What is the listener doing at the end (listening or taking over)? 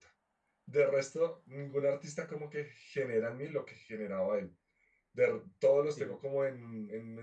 listening